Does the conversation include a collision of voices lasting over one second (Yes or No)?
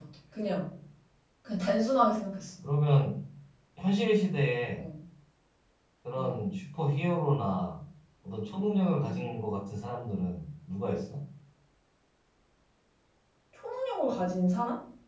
No